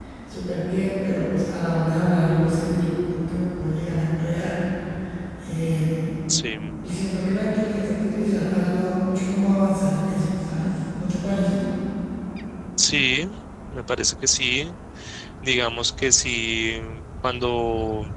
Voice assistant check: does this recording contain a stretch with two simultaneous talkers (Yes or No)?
No